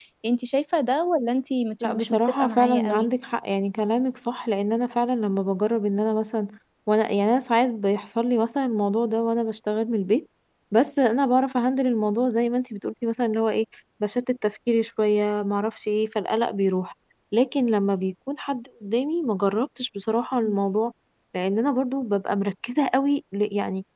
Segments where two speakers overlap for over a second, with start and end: 1.8-3.1

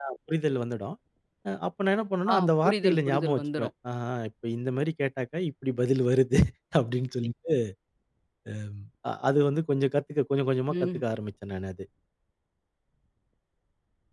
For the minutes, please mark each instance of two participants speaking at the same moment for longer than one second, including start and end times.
2.3-3.7

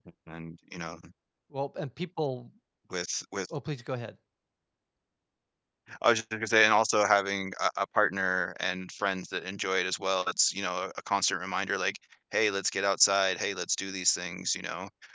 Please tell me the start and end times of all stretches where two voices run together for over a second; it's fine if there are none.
none

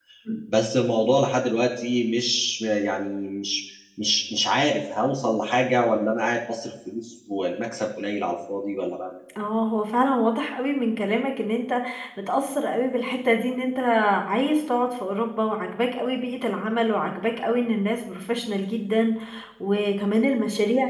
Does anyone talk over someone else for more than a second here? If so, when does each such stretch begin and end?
none

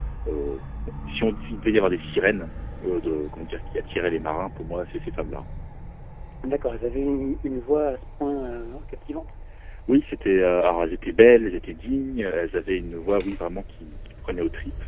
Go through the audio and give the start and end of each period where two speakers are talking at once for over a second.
none

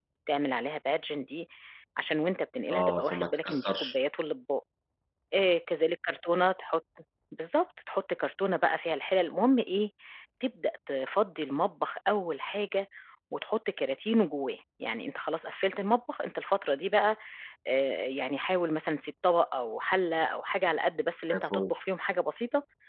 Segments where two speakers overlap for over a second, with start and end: 2.7-4.0

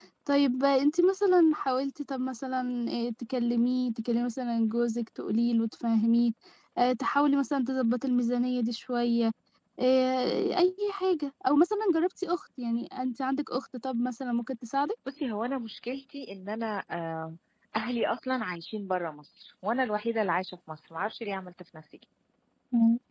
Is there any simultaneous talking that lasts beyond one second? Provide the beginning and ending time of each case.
none

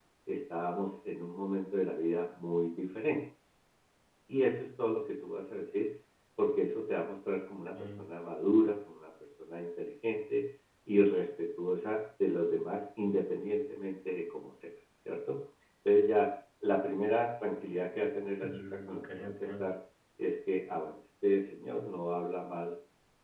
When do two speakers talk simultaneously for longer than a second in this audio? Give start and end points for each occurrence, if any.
18.4-19.6

